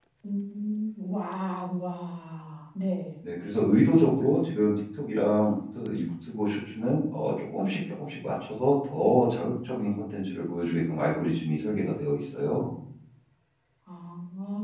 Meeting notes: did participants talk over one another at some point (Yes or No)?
No